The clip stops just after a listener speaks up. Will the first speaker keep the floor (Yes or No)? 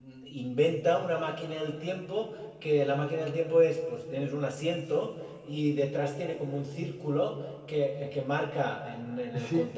No